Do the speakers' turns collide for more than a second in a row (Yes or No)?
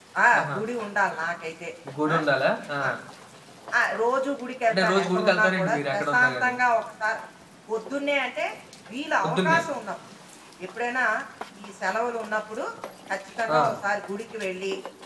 Yes